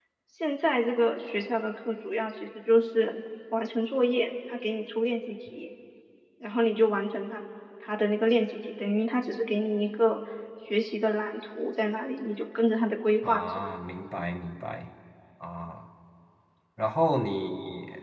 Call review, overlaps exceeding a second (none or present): none